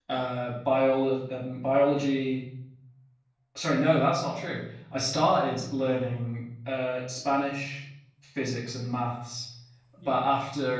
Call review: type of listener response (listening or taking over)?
listening